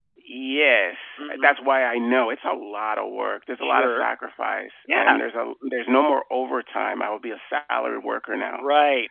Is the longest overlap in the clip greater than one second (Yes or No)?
No